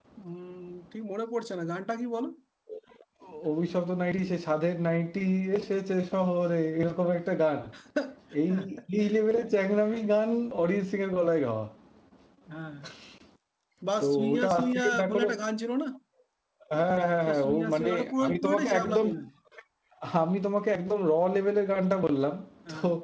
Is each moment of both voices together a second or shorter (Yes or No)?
No